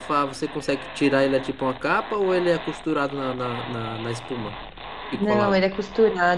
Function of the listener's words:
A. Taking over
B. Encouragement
A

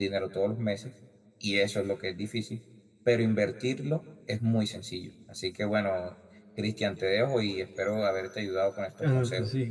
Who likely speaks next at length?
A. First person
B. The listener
B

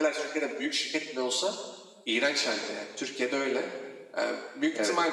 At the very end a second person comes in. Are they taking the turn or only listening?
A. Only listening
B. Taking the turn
A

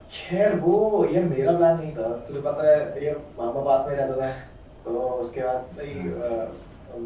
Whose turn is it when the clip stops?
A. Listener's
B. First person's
B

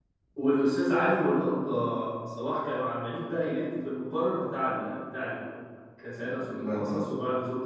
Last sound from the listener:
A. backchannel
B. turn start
A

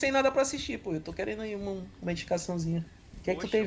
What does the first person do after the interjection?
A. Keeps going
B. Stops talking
B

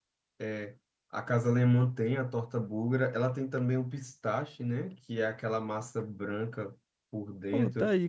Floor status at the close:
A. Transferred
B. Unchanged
A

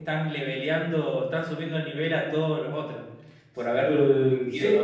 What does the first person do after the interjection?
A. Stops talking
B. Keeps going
A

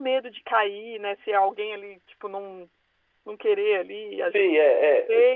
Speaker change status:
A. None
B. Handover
B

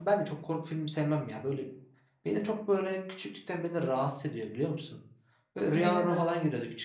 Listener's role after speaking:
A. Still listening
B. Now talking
A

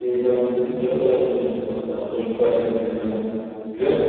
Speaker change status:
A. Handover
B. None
B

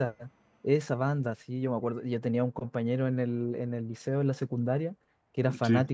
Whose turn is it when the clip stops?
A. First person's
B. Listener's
A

